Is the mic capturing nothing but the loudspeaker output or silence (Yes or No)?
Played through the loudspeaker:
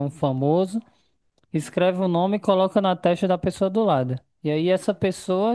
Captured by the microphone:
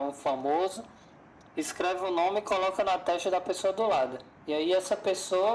Yes